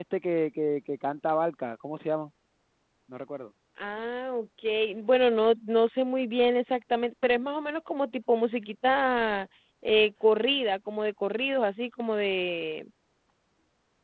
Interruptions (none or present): none